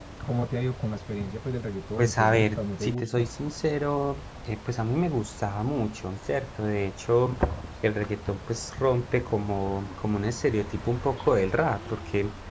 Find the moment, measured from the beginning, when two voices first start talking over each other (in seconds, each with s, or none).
2.0 s